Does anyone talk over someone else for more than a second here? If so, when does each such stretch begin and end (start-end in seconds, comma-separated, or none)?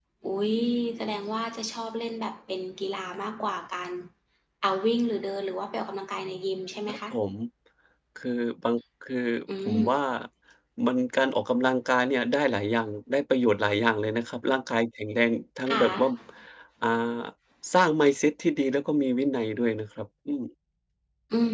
none